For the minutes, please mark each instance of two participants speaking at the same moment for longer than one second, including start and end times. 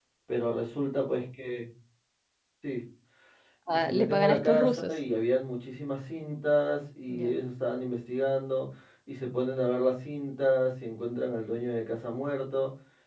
3.7-4.9

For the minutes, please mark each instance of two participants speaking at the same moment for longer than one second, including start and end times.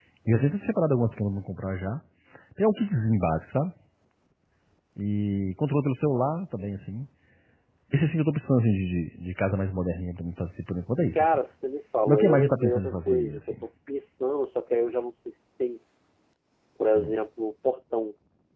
12.1-13.6

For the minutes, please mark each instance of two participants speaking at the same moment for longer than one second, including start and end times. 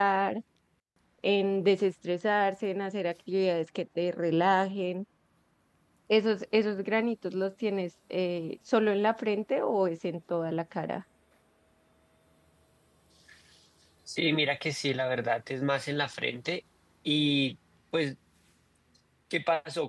none

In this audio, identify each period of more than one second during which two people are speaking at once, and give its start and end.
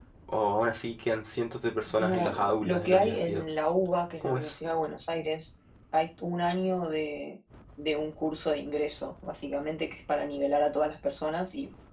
2.0-3.4

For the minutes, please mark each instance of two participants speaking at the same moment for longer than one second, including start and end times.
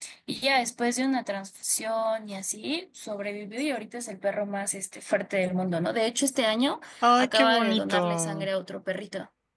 7.2-8.5

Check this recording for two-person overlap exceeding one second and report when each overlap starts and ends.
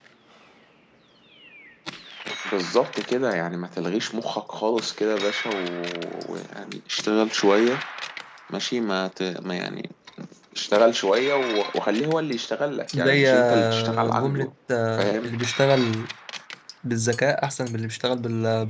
12.9-14.5

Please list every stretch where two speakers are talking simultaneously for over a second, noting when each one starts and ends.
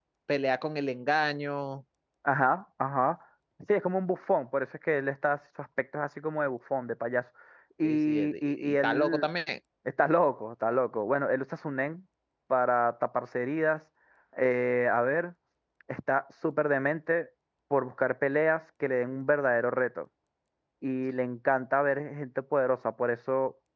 7.8-9.3

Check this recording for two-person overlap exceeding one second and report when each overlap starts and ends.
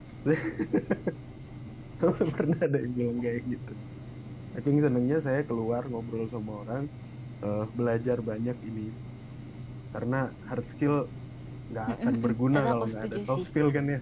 11.9-13.5

